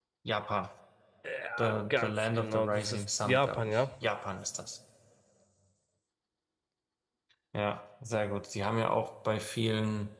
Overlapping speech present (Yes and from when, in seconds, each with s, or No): Yes, from 1.6 s